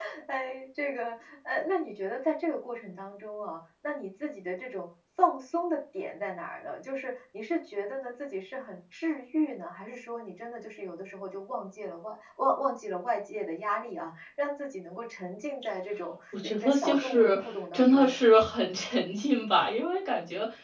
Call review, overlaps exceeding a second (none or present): present